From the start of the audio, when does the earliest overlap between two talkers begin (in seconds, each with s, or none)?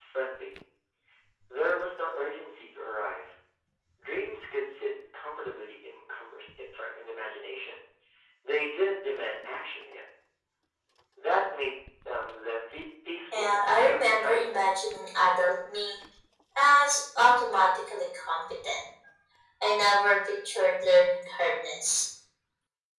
13.3 s